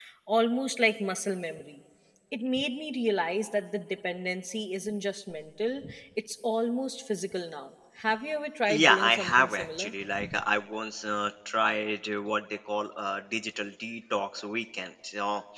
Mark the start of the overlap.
9 s

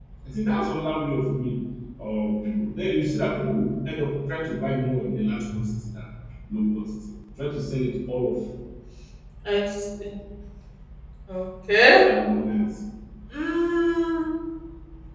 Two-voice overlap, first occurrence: none

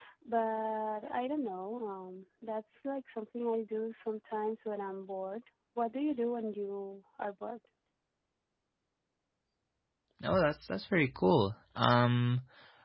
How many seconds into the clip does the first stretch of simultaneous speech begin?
none

